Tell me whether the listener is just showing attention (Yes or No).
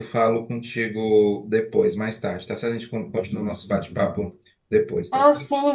No